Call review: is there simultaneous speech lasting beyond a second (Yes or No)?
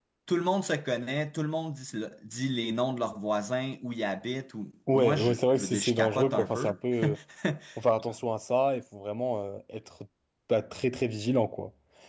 Yes